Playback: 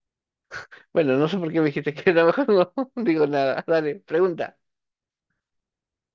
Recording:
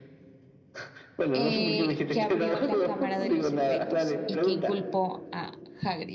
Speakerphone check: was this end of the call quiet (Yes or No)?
No